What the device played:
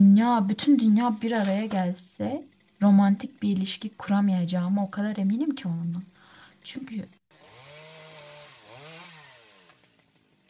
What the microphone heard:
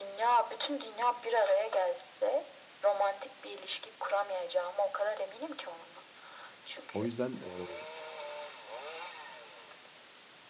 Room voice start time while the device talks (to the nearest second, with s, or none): 7 s